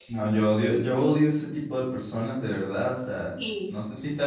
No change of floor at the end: Yes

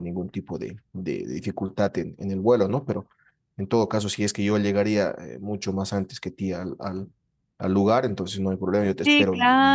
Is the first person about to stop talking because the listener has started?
Yes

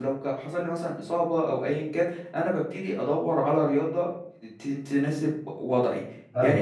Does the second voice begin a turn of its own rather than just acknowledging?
No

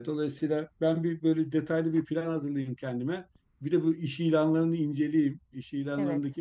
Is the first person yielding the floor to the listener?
No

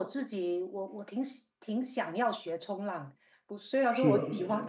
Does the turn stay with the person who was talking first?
Yes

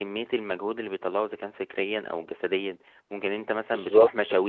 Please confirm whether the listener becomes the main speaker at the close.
No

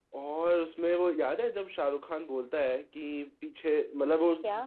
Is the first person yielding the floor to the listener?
No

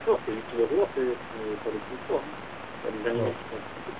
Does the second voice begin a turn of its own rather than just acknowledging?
No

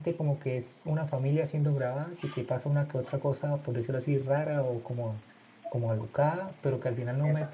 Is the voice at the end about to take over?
No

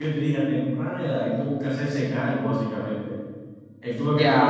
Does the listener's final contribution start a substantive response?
Yes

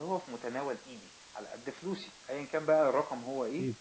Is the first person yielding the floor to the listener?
No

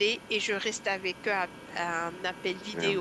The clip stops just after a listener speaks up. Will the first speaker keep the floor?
Yes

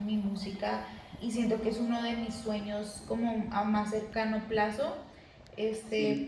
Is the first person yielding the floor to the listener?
No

